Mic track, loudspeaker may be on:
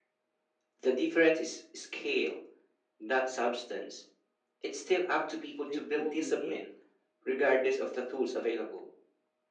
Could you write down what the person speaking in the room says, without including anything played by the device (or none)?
they pull you in,